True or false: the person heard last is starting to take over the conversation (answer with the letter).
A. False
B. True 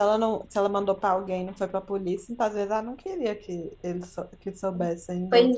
B